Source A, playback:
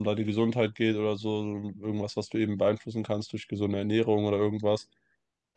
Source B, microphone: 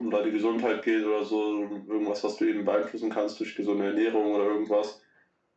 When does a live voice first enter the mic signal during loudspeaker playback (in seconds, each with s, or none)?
none